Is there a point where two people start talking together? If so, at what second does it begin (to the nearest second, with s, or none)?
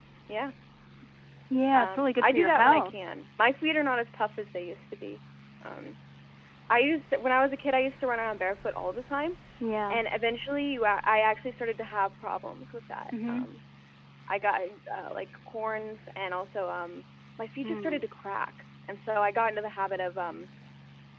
2 s